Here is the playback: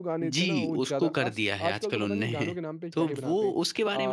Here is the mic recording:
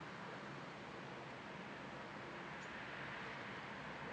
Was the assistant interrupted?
No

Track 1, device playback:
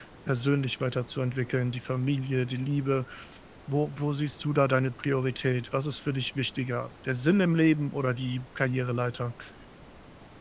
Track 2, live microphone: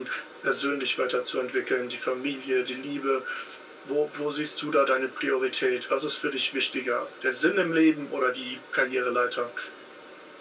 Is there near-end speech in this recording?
No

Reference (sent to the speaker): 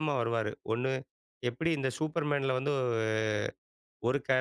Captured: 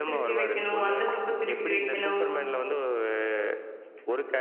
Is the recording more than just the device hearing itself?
Yes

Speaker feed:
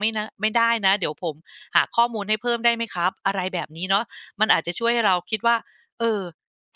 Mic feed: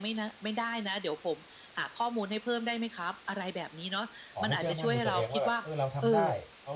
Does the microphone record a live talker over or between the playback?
Yes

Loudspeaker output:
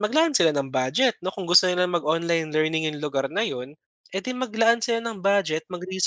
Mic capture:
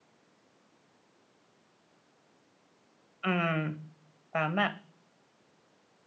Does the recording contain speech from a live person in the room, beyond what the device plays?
Yes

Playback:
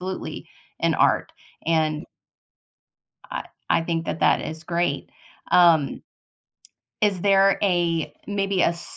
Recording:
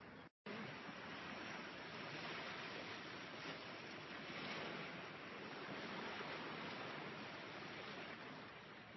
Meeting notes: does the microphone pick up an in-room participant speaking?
No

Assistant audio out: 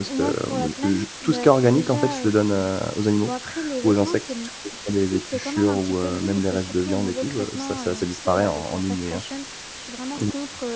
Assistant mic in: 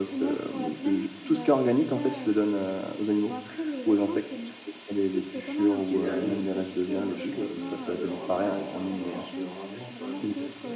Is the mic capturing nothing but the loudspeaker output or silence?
No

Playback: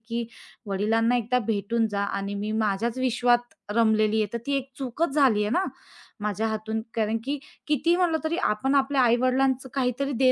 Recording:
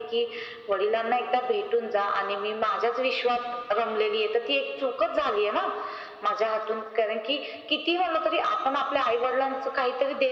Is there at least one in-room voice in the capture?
No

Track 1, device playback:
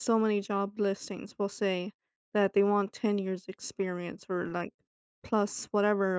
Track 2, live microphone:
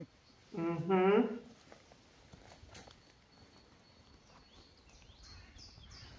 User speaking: Yes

